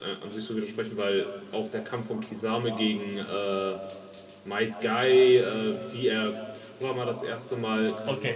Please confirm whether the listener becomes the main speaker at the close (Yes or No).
Yes